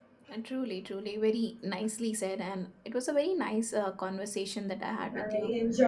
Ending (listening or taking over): taking over